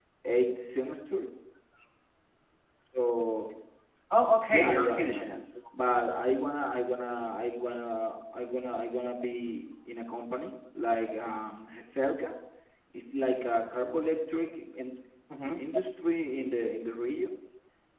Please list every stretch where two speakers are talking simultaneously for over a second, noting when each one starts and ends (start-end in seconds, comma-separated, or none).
4.1-5.4